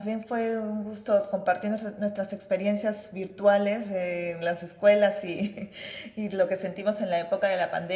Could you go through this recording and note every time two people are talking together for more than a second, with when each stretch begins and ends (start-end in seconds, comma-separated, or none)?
none